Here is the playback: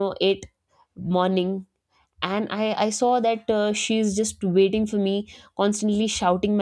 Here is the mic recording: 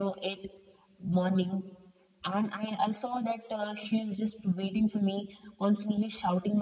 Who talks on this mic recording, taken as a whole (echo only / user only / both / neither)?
echo only